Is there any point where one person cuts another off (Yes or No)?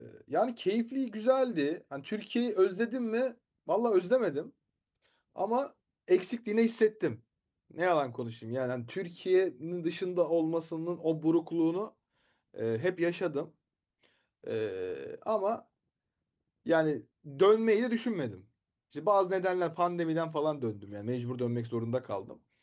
No